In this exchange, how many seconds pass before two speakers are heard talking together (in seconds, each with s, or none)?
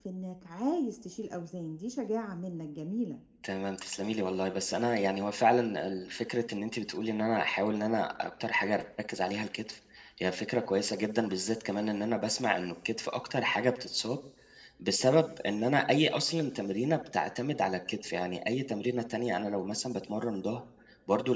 none